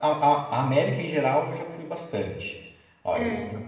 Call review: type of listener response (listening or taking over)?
listening